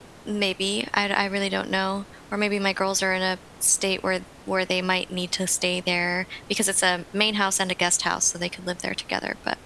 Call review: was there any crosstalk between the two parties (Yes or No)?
No